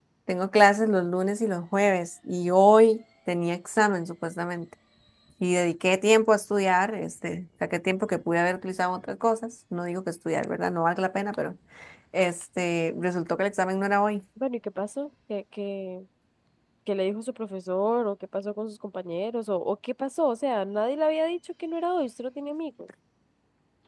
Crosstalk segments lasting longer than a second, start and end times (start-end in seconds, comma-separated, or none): none